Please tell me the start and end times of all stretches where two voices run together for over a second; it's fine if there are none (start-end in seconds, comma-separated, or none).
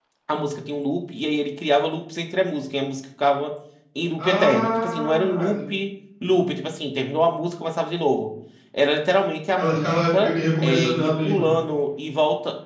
4.2-5.5, 9.6-11.6